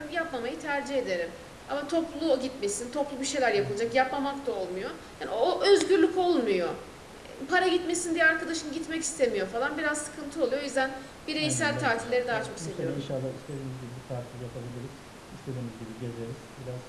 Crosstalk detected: Yes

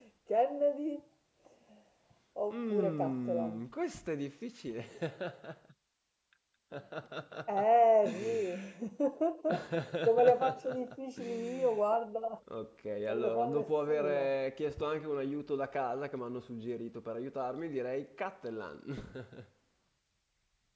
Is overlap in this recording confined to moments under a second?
No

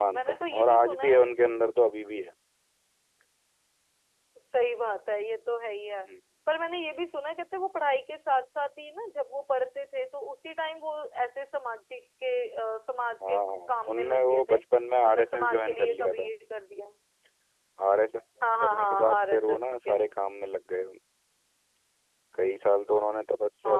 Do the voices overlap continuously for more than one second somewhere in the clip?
Yes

